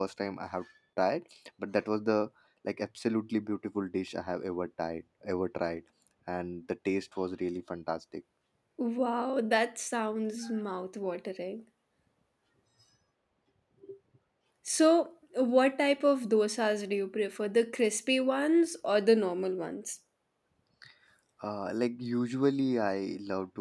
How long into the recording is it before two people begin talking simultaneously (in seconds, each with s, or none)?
none